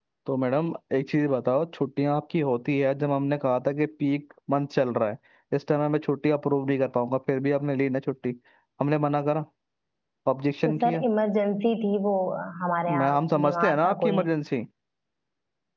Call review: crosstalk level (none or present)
present